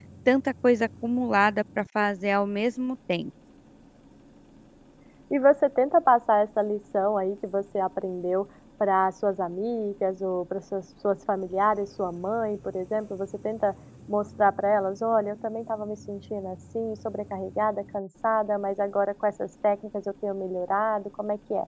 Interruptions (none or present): none